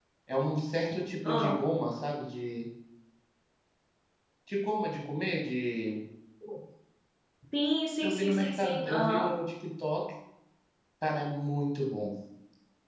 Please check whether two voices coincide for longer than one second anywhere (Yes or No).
Yes